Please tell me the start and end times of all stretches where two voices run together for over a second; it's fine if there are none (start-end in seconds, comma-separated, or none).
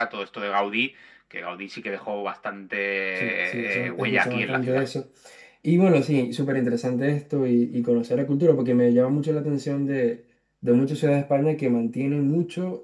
3.2-4.8